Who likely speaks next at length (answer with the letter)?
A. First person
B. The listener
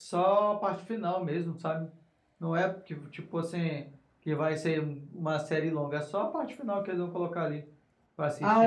B